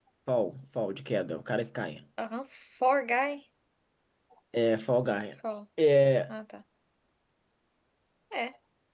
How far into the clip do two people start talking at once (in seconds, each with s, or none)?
none